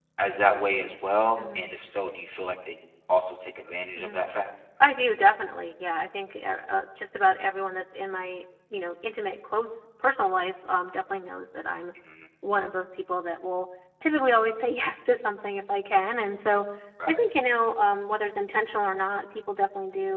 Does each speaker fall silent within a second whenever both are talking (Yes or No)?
Yes